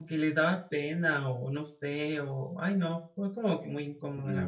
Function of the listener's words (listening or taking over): taking over